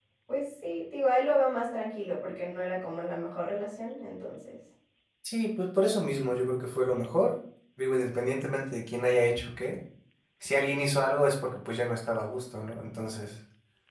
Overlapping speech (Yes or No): No